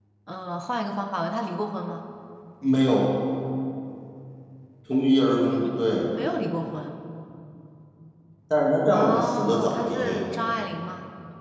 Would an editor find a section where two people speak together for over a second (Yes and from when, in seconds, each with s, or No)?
Yes, from 8.9 s